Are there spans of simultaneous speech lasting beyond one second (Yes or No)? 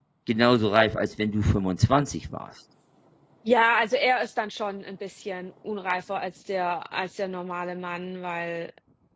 No